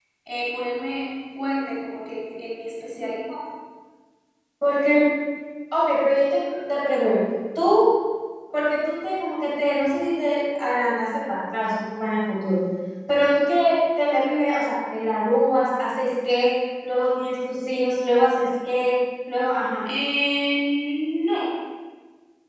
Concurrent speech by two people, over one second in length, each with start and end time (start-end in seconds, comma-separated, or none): none